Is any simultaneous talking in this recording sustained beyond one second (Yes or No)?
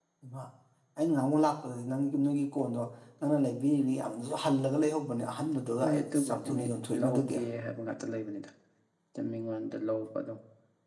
Yes